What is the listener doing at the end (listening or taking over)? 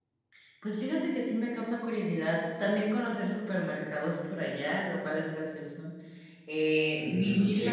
taking over